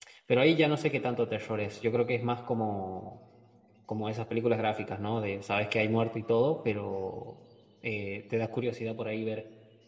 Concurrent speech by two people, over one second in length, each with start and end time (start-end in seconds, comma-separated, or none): none